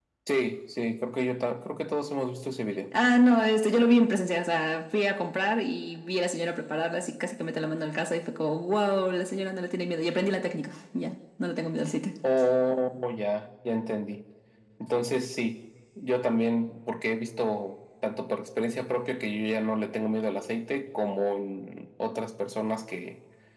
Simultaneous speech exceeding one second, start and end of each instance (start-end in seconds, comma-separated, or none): none